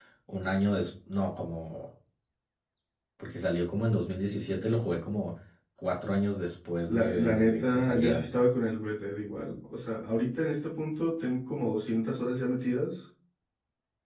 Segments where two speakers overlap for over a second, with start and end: 7.0-8.2

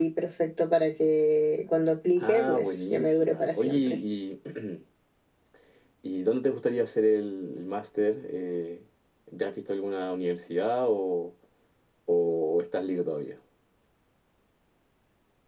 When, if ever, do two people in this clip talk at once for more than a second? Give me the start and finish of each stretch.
2.2-4.0

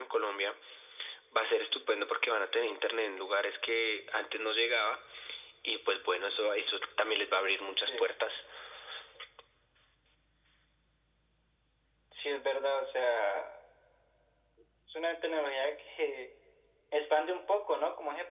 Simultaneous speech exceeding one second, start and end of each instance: none

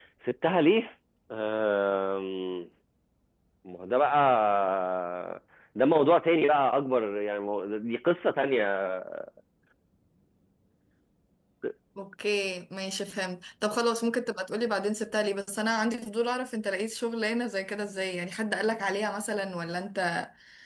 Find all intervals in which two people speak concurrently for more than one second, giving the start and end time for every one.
none

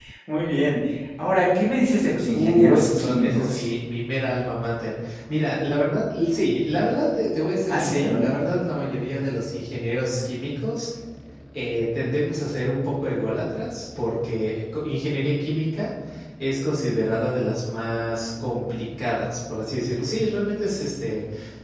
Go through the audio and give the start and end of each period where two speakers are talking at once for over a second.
2.3-3.7

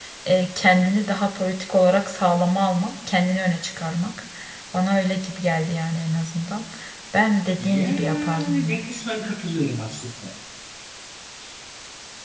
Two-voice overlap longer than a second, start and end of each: 7.6-8.8

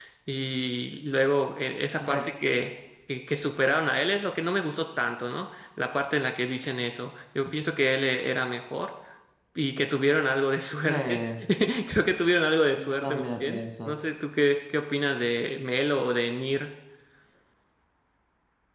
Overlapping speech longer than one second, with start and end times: 12.7-13.9

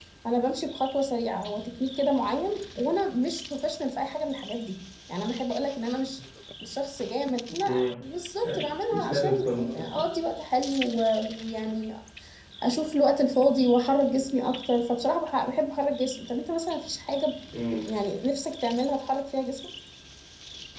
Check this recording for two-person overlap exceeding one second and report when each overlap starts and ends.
8.4-10.0

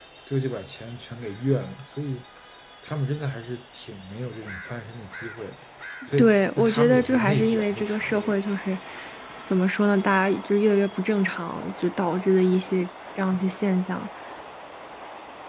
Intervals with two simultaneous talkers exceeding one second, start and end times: 6.2-8.3

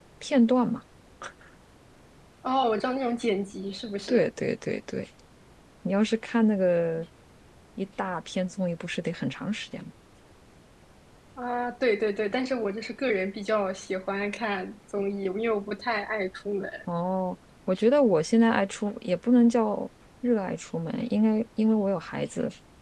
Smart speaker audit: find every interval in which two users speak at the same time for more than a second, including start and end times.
none

